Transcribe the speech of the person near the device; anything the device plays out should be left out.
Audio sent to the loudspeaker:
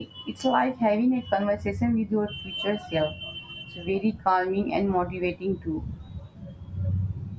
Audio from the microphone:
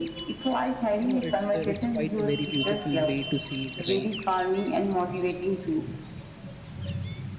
You know, it's uh, it's quite a very beautiful way to see it, right?

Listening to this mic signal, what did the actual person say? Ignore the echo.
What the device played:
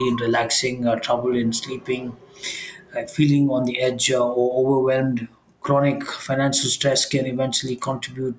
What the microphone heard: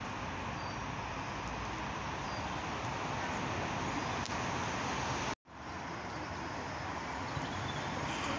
none

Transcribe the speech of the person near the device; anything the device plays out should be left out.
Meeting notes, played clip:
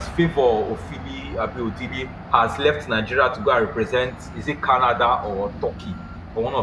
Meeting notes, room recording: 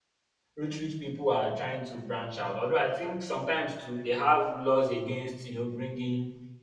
rich rich people are trying to branch out. Although I think sometimes too they have laws against you know bringing

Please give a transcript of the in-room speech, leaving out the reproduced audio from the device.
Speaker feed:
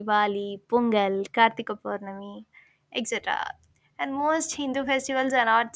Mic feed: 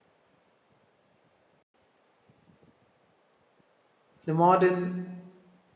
The modern

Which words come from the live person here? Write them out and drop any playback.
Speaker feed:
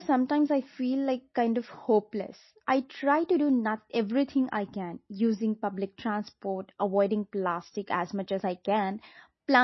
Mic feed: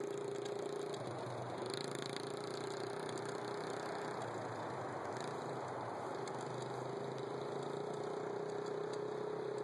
none

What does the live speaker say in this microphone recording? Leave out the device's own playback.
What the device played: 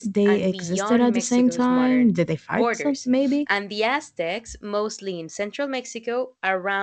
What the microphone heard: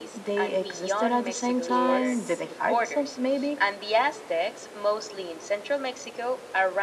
is

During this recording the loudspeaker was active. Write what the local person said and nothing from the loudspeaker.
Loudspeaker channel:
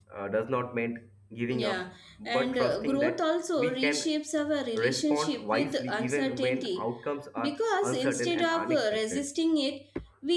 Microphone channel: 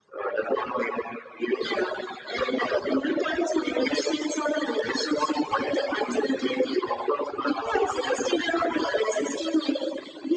none

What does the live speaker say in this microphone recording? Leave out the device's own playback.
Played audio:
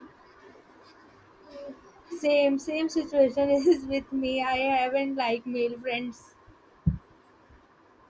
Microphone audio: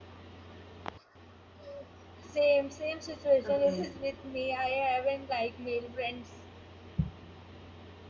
Okay.

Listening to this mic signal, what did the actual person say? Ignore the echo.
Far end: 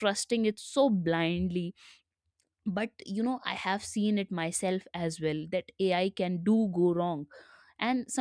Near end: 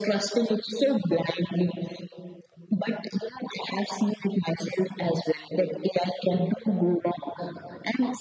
none

